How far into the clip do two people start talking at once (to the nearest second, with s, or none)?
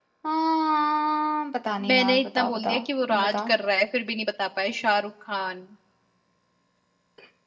2 s